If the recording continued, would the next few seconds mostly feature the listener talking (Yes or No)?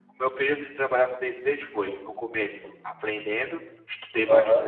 No